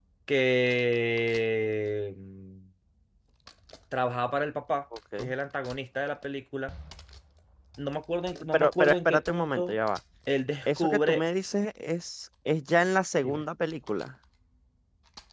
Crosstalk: present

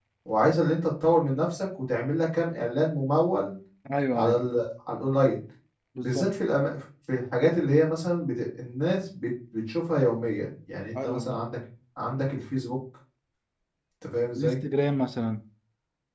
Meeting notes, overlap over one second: none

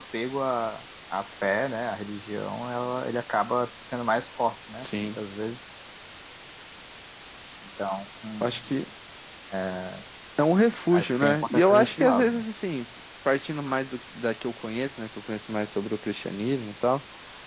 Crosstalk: present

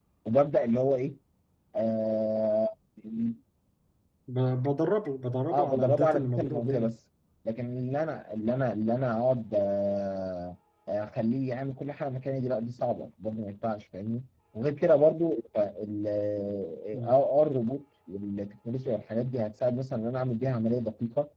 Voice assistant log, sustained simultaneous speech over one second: present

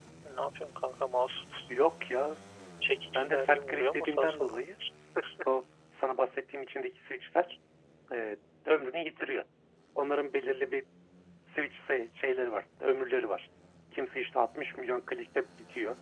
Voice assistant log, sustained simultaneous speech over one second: present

